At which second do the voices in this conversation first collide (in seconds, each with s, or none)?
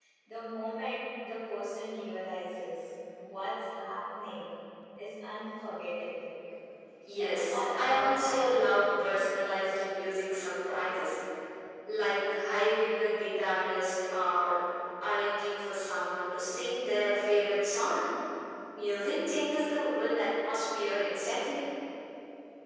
7.2 s